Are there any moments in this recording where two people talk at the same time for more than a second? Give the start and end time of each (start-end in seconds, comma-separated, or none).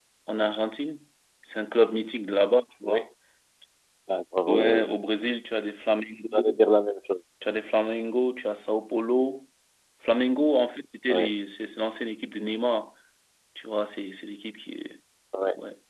none